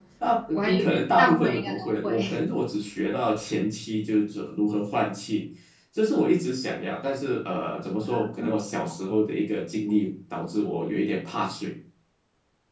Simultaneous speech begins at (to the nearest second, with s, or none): 1 s